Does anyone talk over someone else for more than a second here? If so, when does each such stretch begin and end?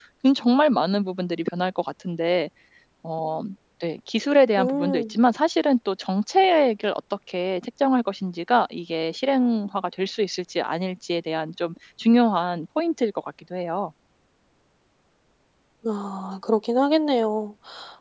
none

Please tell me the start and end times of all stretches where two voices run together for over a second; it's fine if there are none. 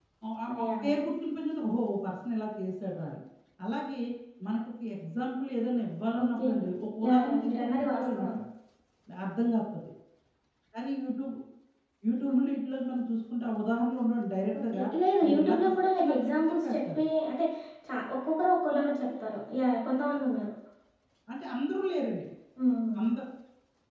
7.1-8.3, 15.2-17.0

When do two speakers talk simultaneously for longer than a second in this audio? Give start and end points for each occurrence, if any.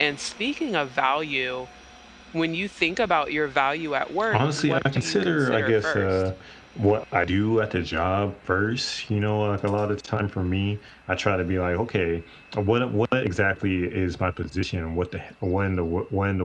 4.3-6.3

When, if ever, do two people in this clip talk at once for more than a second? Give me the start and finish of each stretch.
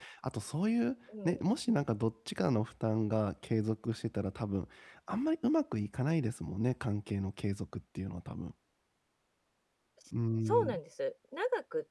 none

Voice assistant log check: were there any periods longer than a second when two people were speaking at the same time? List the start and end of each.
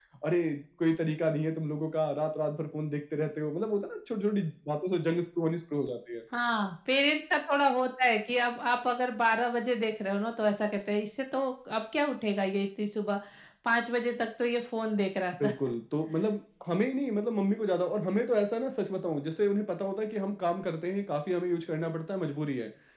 none

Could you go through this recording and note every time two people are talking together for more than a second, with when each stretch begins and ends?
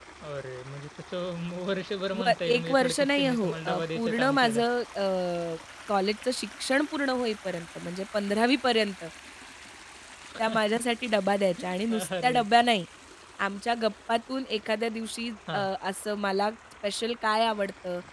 2.2-4.6

